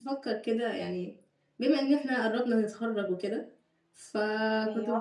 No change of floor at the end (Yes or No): Yes